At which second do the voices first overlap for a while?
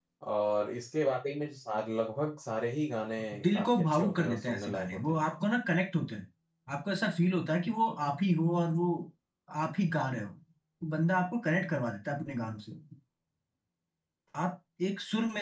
3.3 s

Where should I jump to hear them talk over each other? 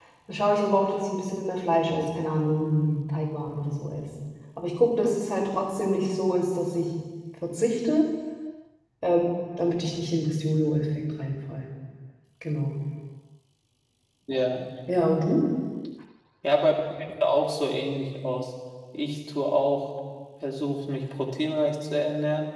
none

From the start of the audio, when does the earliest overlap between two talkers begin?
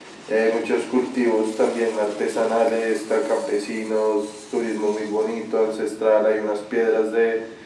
none

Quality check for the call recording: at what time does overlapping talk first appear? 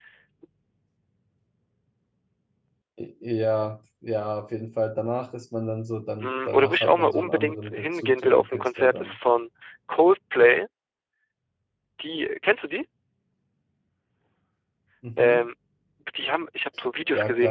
6.2 s

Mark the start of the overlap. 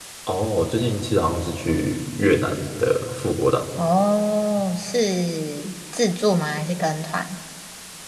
none

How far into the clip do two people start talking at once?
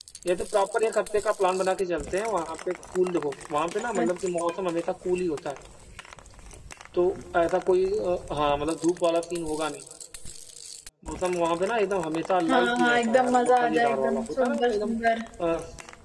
12.5 s

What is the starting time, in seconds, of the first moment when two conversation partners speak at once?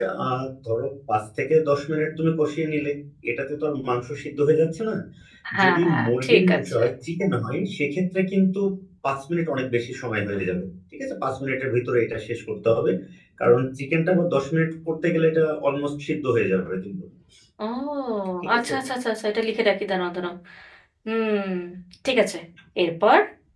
5.6 s

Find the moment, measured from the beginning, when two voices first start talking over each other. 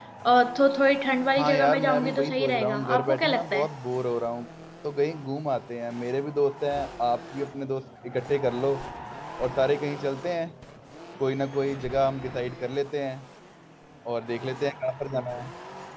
1.4 s

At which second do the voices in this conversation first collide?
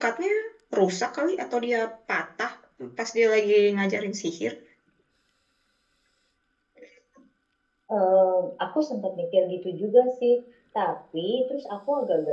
none

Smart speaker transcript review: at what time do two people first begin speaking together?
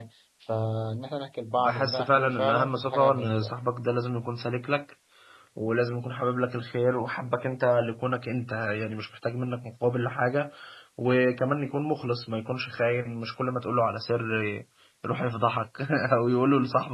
1.6 s

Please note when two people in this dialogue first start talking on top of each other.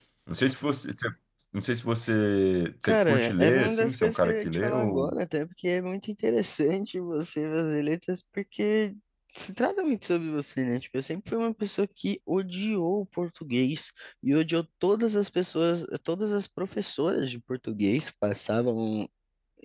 2.8 s

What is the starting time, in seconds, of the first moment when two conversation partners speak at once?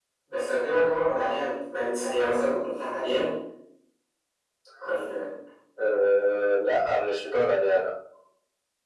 none

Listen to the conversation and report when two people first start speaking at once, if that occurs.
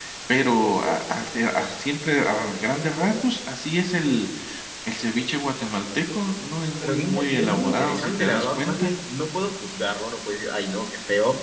6.8 s

